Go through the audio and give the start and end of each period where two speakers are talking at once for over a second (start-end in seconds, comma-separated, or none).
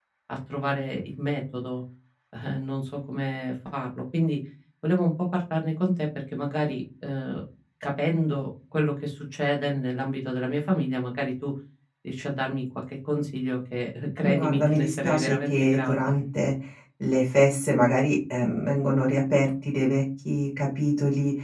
14.2-16.1